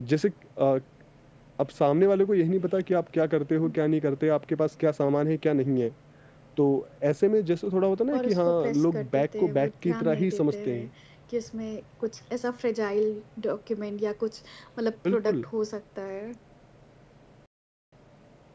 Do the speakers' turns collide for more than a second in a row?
Yes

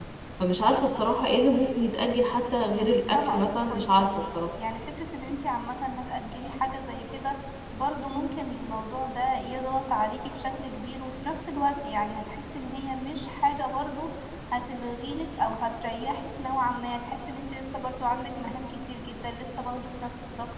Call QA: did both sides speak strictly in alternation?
No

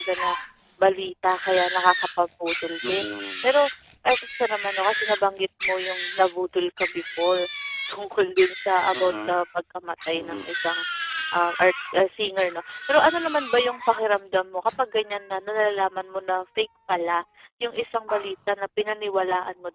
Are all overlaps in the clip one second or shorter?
Yes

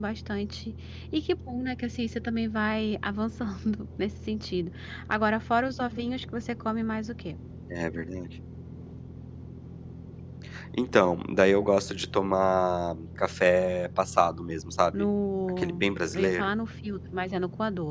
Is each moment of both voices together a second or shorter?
Yes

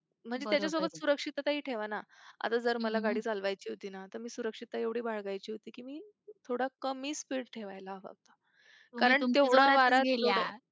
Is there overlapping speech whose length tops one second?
Yes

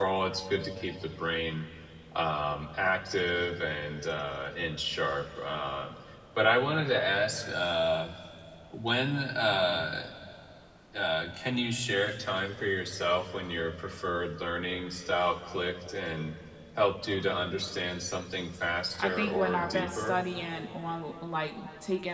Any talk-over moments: Yes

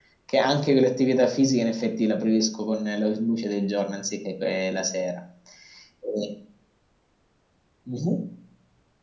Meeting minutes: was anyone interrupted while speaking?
No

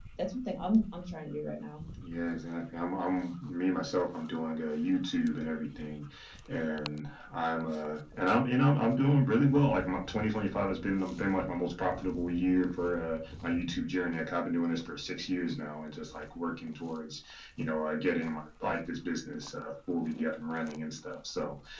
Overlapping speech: No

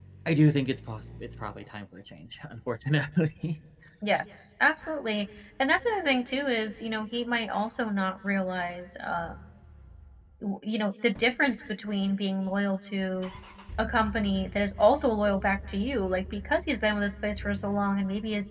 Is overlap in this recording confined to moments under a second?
Yes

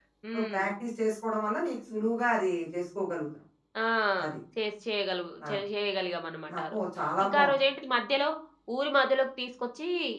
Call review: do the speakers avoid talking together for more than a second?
Yes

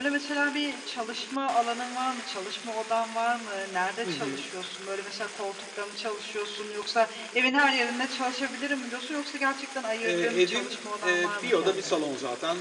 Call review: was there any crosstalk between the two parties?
Yes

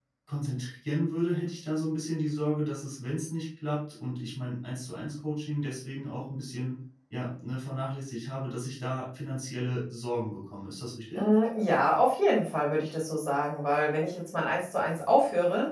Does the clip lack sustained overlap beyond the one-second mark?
Yes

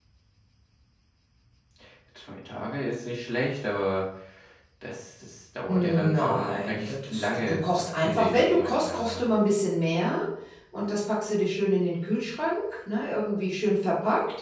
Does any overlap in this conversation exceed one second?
Yes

